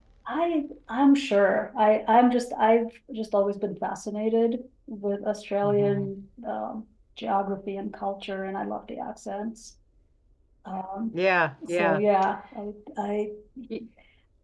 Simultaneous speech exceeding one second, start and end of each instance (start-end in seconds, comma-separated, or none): none